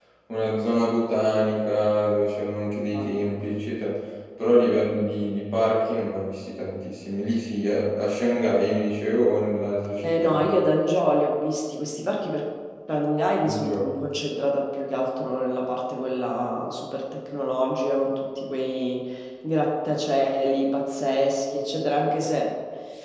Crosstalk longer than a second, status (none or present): none